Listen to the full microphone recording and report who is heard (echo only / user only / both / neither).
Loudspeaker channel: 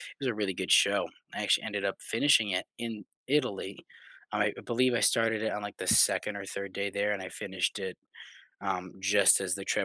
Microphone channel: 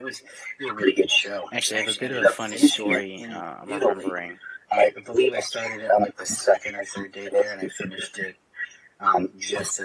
both